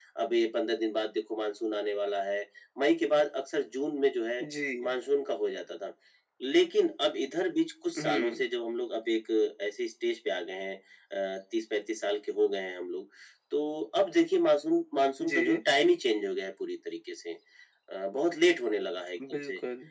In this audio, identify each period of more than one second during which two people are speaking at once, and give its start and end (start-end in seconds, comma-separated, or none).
none